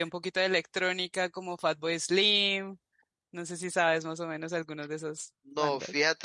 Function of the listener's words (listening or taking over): taking over